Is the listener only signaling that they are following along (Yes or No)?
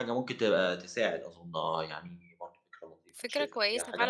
No